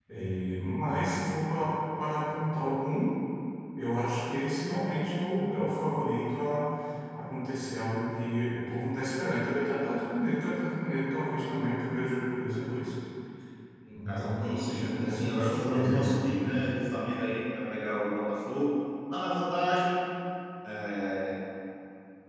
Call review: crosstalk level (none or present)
present